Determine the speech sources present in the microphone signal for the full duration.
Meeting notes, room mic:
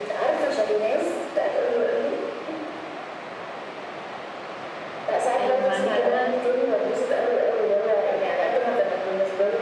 both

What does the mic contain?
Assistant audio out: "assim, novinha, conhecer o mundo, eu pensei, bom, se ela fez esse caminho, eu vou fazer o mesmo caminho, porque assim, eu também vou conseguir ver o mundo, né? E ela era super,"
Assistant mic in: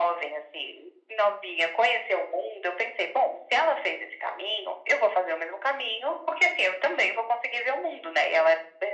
echo only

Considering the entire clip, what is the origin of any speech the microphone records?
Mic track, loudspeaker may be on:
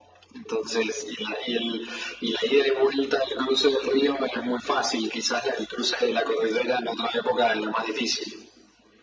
echo only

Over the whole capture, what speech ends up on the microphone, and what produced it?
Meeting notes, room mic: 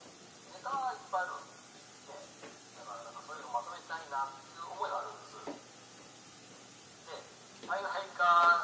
echo only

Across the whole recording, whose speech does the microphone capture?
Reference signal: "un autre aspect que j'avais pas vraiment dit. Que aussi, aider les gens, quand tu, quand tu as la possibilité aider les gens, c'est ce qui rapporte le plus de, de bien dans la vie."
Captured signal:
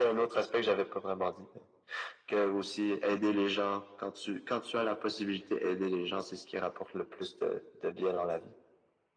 echo only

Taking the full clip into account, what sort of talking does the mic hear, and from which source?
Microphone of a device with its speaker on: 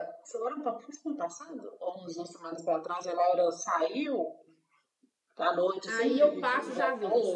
both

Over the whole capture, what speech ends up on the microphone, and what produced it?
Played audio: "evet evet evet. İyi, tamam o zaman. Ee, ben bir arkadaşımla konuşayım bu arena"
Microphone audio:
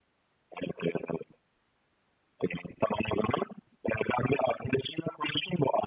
echo only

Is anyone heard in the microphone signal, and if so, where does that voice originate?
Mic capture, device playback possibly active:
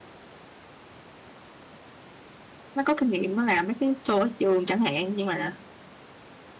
user only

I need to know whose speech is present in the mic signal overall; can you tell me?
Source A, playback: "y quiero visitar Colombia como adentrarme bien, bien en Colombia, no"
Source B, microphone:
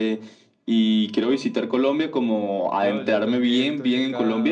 both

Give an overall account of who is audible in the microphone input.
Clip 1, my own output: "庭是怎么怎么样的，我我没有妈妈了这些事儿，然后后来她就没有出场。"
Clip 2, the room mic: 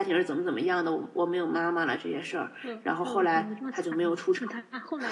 both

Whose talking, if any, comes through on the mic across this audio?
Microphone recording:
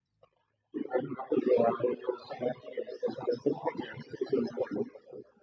echo only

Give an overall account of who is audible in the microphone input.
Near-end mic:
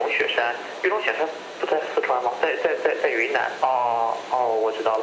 echo only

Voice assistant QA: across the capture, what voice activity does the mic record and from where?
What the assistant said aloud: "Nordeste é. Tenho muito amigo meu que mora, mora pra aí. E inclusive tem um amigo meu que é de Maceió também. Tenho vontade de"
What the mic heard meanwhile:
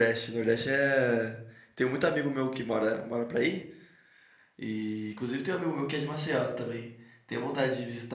echo only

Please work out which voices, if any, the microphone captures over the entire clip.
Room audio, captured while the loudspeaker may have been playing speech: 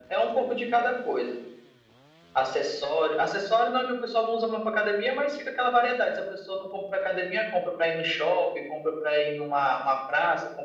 echo only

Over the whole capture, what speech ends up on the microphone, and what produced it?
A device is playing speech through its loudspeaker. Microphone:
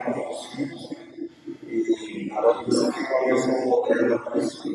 echo only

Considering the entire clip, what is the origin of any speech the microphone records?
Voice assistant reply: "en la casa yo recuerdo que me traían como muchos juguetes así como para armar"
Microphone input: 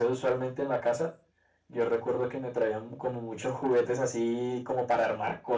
echo only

